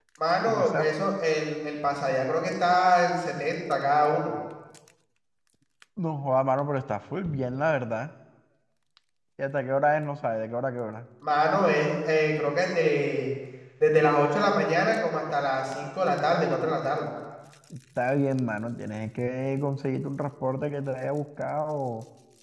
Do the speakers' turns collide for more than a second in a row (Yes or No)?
No